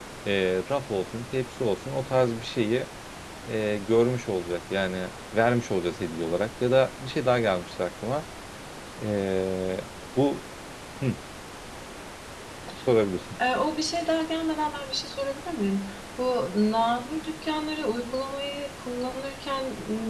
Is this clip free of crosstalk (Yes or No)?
Yes